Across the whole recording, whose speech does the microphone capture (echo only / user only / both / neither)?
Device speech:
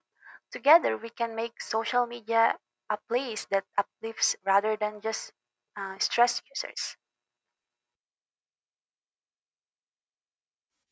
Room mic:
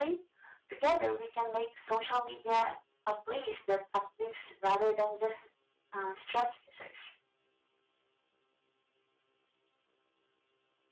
echo only